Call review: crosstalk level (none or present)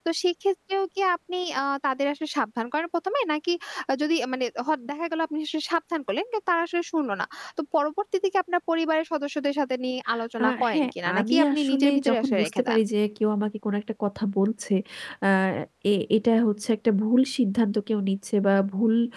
present